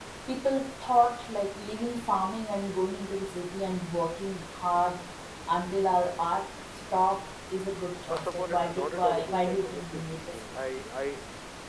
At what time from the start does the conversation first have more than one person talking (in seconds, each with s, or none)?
8.1 s